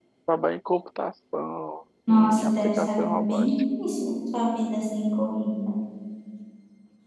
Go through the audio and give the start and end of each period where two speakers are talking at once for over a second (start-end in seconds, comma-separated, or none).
2.1-3.5